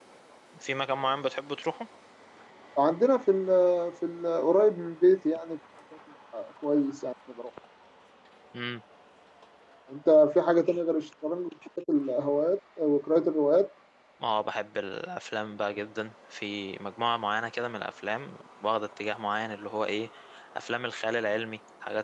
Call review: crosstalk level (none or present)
none